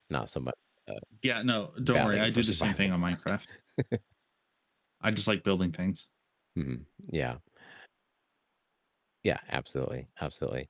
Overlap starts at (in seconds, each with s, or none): 1.8 s